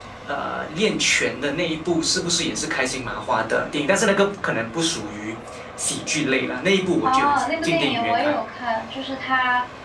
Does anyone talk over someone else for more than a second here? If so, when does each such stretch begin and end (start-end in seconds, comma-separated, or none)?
7.0-8.4